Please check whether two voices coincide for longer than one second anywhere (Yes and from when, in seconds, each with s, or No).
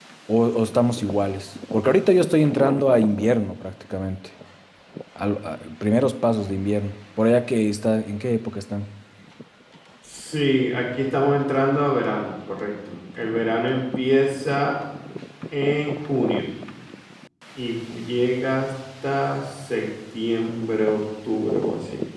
No